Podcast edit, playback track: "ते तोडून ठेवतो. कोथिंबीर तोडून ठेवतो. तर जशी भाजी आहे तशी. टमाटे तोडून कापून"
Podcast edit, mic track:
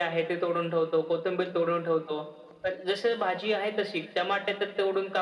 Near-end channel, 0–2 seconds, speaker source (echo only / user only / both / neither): echo only